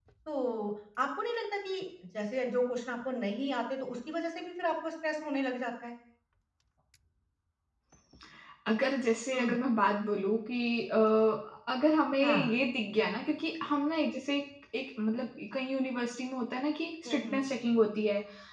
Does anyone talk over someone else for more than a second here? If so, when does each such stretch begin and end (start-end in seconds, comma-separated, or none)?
none